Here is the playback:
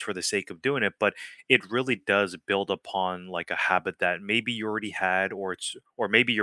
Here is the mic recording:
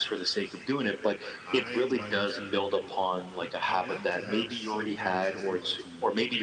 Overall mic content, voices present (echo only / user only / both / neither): both